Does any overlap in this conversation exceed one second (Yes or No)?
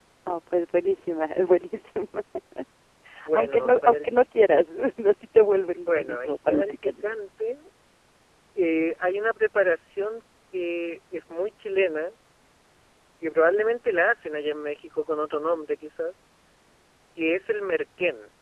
Yes